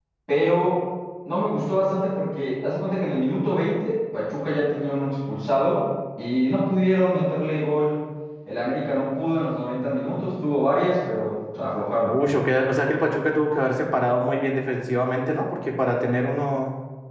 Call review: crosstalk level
none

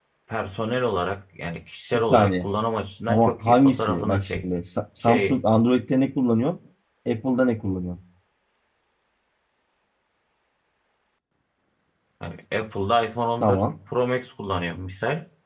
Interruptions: present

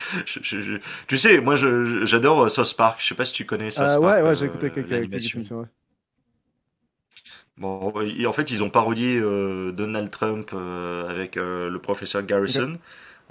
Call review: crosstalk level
present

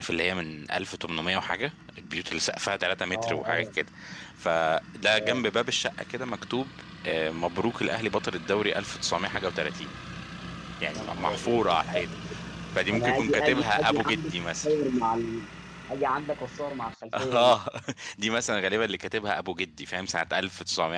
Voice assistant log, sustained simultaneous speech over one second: present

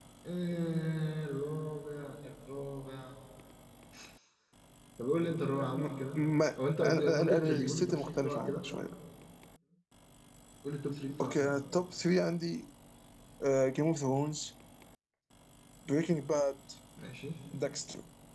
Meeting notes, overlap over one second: present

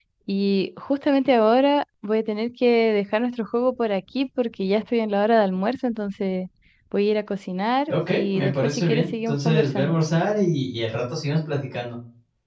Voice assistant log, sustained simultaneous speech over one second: present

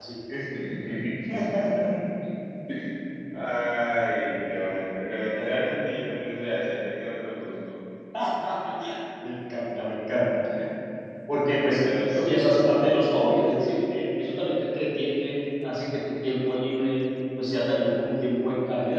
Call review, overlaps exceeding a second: none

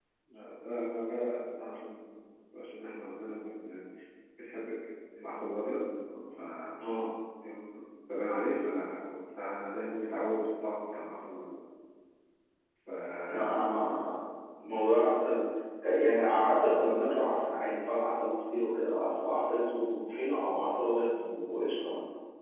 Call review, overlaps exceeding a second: none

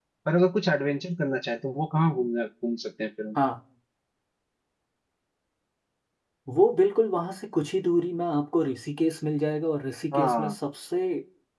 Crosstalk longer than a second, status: none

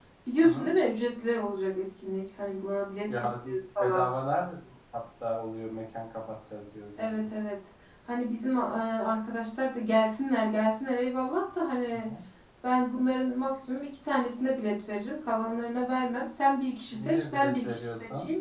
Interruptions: present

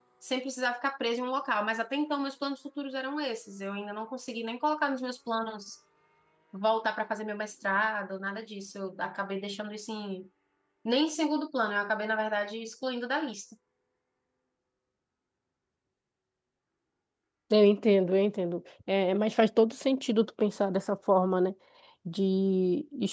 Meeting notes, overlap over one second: none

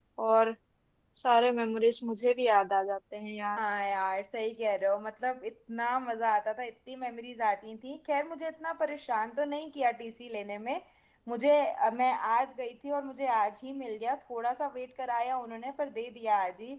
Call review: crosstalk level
none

